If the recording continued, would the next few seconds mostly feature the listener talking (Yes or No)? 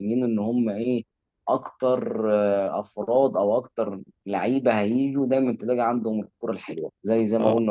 No